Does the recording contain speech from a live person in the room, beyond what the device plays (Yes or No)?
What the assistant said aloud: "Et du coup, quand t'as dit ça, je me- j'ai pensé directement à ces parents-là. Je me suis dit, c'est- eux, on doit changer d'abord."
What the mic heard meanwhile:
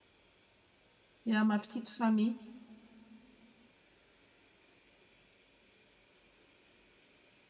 Yes